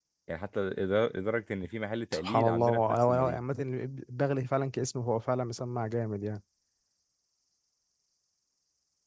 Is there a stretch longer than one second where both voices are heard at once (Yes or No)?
Yes